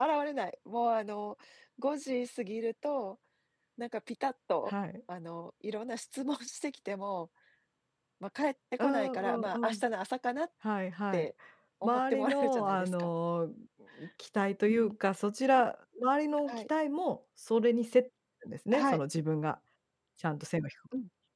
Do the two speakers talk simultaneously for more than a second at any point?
Yes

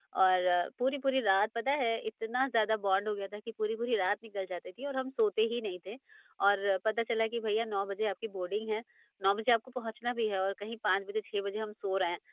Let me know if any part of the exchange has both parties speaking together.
No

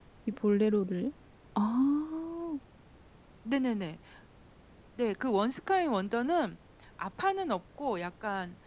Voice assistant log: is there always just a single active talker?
Yes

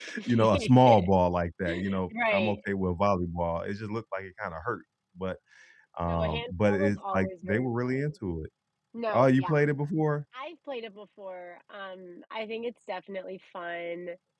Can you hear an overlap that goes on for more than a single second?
Yes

